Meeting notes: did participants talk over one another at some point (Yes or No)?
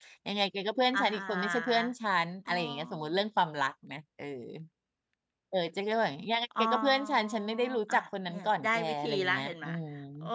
Yes